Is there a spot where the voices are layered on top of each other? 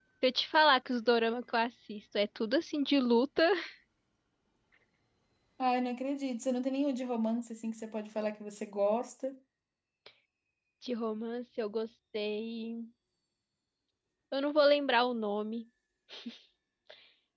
No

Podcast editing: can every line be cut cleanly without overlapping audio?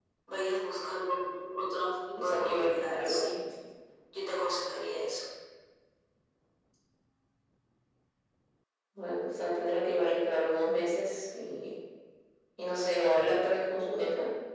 No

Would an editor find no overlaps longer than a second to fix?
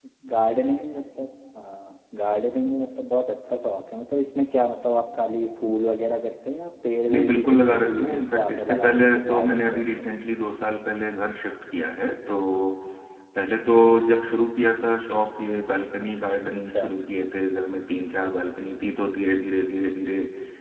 No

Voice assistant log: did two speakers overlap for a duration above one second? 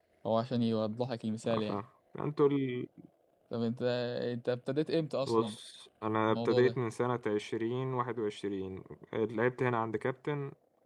No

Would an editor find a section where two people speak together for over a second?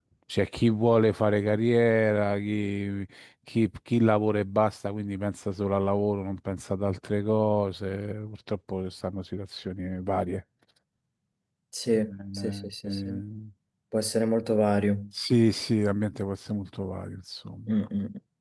Yes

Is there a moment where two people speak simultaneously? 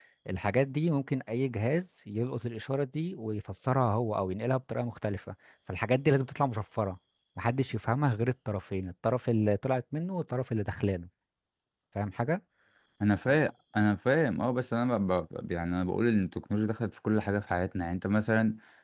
No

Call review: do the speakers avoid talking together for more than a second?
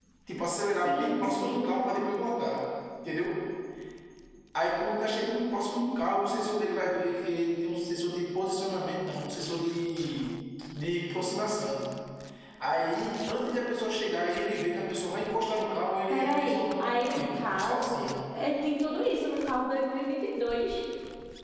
No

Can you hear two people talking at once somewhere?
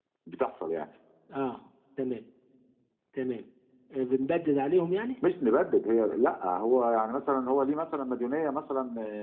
No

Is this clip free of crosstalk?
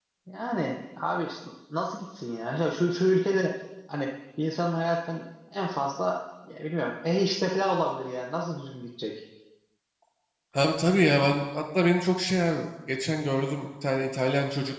Yes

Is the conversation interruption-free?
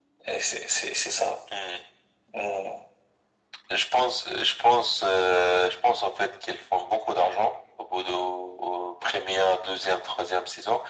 Yes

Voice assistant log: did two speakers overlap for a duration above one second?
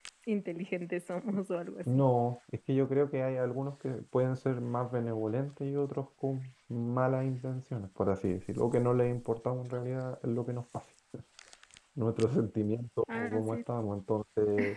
No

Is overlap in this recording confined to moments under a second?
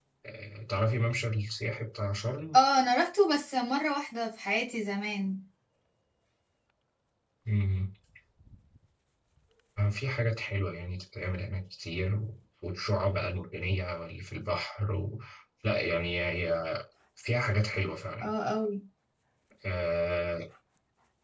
Yes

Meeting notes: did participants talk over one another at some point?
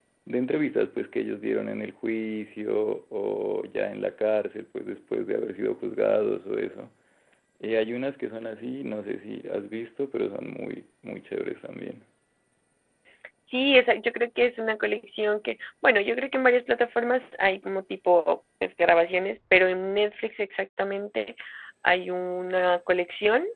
No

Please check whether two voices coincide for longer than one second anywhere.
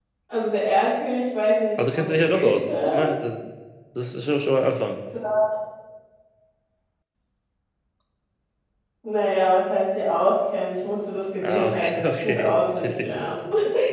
Yes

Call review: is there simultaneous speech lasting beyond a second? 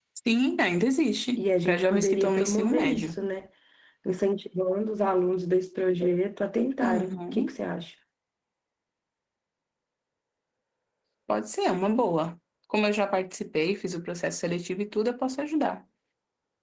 Yes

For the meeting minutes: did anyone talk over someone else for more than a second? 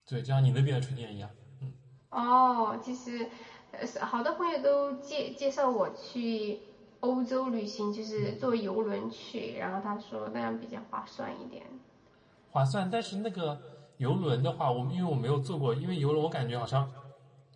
No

